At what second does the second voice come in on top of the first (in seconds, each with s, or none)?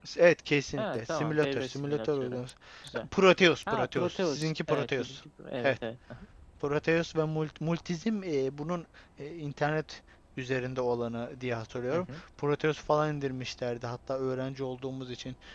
0.8 s